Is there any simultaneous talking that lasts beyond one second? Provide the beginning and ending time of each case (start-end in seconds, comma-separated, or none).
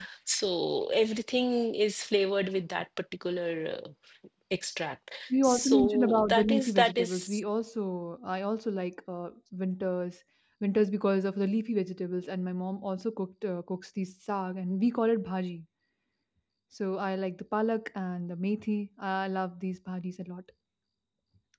5.4-7.1